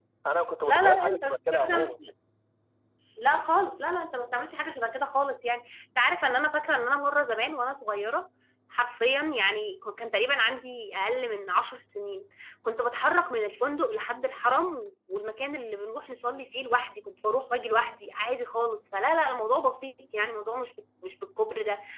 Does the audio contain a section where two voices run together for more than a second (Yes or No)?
Yes